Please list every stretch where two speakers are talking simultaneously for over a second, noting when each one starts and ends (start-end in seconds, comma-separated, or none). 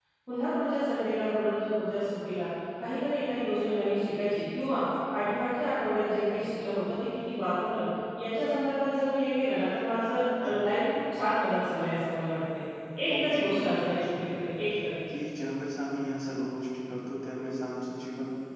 13.1-14.3